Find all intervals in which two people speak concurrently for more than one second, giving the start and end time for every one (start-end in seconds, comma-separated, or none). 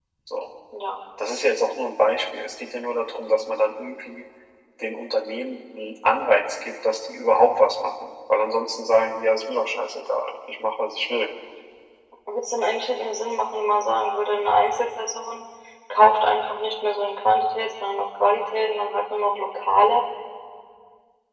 none